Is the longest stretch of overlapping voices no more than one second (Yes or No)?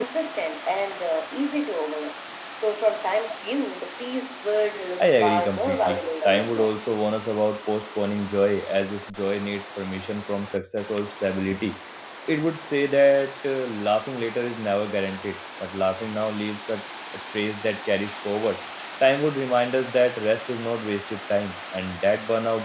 No